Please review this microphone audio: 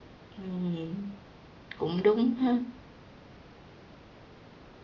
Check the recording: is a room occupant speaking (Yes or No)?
Yes